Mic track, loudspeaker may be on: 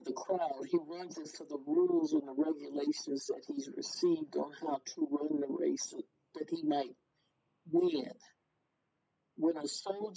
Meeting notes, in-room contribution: none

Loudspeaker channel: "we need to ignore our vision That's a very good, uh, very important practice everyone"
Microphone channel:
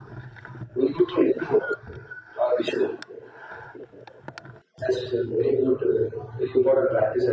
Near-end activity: none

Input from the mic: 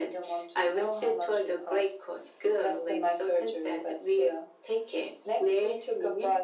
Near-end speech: none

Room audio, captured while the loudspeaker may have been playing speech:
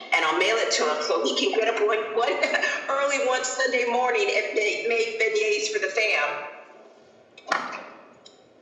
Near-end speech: none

